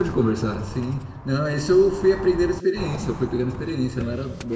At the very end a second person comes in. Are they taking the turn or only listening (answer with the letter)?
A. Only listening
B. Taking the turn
A